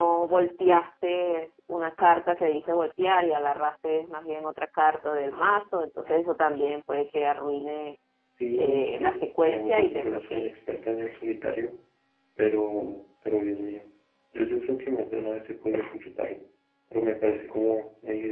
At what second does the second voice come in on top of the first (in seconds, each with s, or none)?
8.5 s